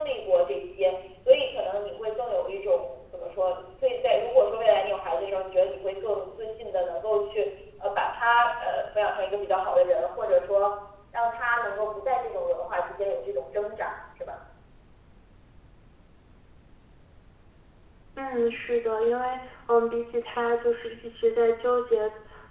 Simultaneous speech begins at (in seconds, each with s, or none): none